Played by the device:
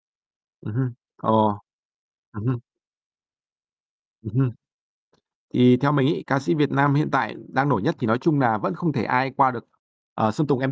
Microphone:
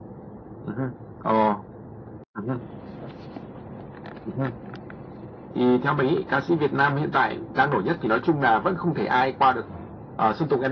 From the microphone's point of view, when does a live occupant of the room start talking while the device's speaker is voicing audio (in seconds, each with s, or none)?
none